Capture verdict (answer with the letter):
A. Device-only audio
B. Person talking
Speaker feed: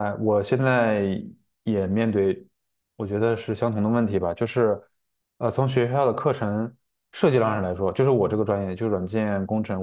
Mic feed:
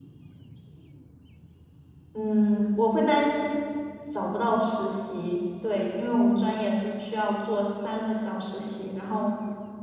B